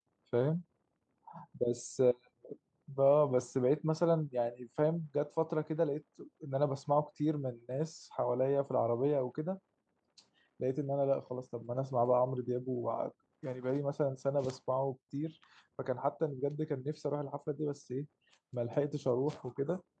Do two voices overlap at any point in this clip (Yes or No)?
No